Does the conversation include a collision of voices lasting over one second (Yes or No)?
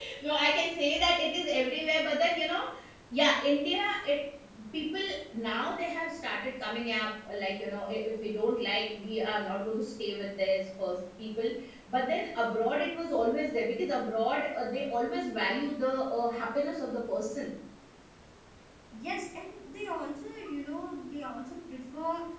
No